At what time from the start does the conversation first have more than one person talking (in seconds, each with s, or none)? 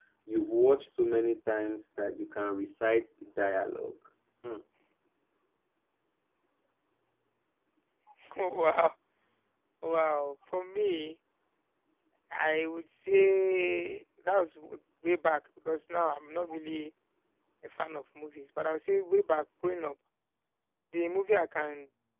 none